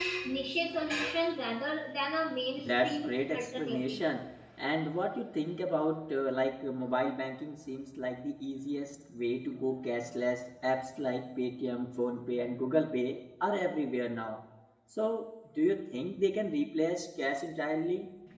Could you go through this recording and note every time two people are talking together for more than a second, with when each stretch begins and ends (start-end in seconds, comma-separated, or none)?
2.6-4.0